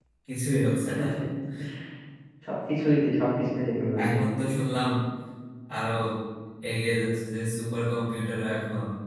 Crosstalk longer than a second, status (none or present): none